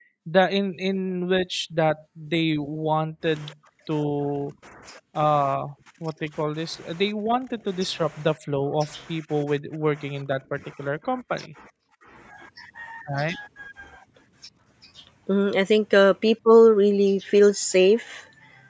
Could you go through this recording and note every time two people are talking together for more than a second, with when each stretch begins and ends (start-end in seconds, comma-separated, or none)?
none